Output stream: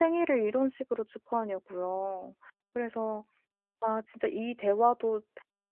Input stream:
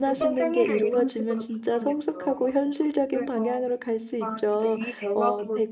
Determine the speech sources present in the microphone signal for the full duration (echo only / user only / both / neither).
both